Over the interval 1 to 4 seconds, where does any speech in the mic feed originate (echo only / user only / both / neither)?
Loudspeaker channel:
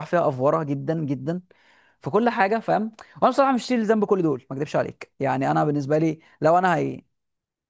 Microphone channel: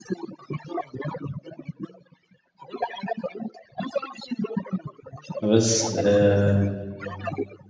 echo only